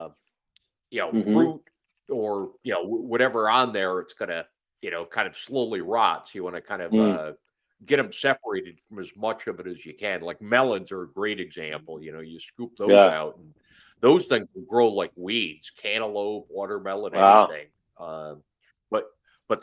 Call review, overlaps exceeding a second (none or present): none